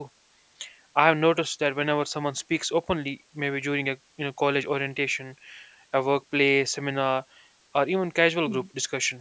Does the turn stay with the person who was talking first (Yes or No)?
Yes